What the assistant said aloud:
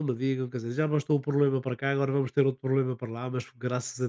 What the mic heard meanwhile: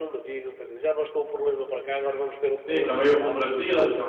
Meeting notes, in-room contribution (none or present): present